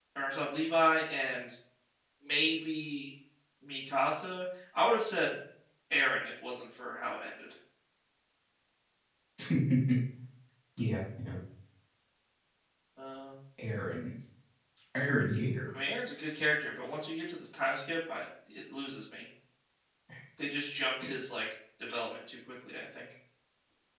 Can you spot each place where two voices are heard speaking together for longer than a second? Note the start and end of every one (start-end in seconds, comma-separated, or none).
none